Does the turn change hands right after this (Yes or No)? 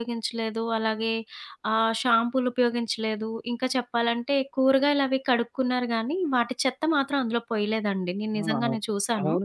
Yes